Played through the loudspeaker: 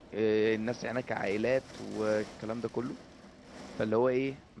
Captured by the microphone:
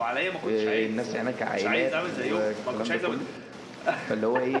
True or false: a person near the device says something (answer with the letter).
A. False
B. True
B